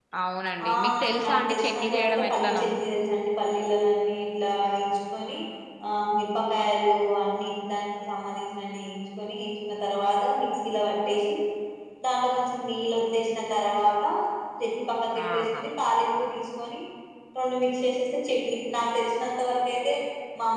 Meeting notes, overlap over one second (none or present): present